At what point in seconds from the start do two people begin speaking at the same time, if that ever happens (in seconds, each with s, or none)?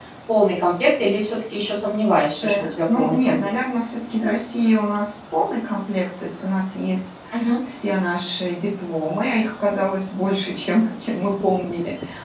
2.3 s